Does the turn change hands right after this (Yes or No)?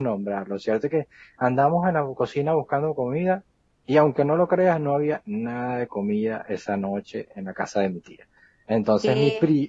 No